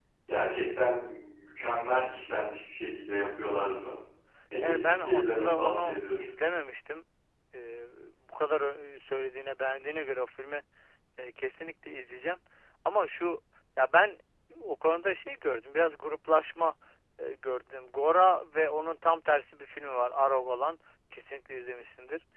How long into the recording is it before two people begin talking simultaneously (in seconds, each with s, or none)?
4.6 s